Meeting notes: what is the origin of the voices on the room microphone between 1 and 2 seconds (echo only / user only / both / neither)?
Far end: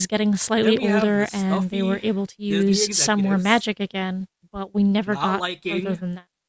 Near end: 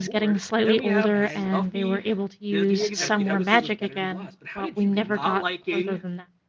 both